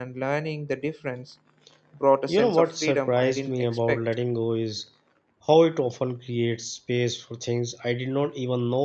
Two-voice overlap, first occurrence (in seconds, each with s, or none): 2.3 s